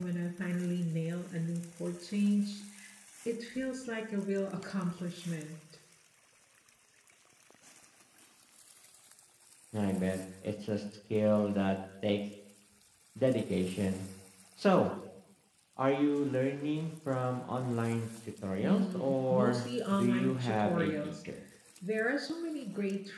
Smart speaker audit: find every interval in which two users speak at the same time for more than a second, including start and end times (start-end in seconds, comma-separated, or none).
18.6-21.2